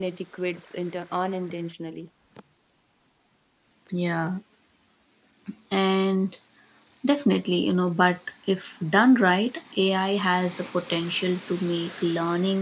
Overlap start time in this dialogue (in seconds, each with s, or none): none